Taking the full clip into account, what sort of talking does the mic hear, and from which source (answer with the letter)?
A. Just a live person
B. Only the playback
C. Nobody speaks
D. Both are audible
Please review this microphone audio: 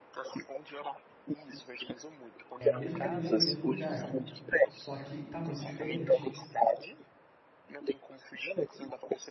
D